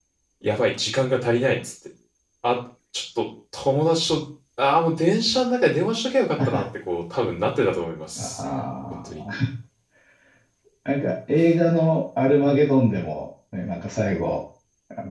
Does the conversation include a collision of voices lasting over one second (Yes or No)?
No